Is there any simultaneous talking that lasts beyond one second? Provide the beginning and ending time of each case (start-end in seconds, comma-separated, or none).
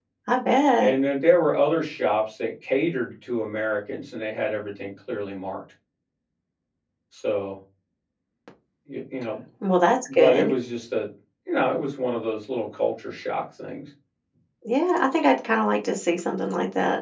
none